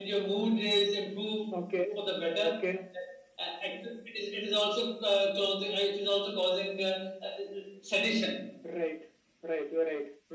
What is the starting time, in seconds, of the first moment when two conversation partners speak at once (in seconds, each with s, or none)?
none